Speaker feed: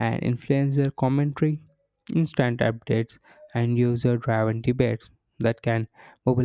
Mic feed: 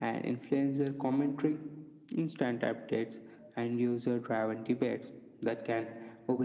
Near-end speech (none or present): none